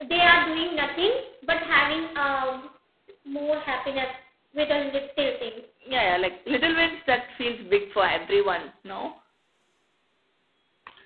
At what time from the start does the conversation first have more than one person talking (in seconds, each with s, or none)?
none